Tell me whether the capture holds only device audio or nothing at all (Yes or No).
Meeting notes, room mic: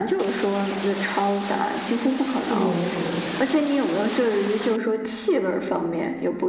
No